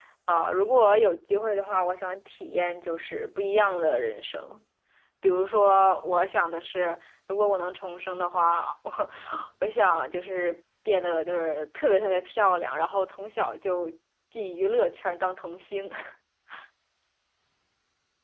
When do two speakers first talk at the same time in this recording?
none

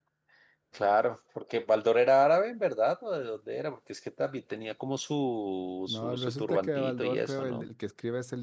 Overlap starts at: 5.9 s

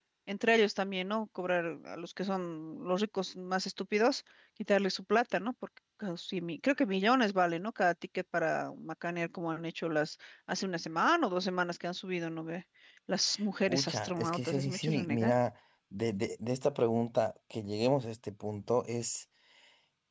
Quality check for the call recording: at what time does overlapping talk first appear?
13.7 s

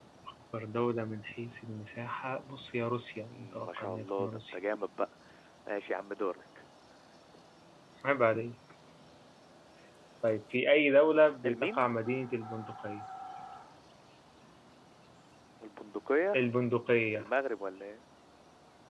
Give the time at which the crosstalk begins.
3.3 s

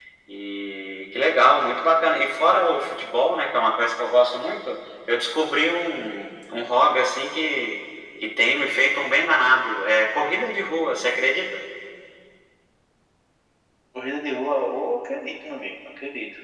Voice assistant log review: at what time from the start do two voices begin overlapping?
none

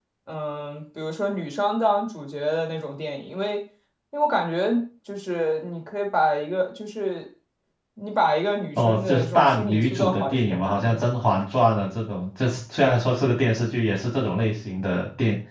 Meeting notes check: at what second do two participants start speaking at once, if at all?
8.8 s

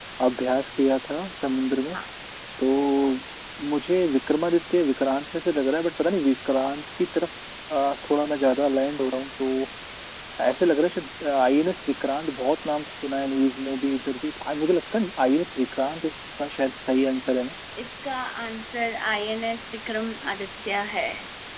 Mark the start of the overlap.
none

